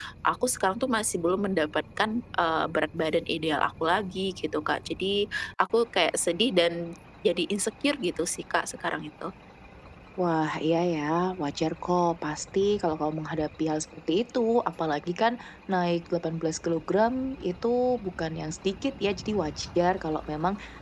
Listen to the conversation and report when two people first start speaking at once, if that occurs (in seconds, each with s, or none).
none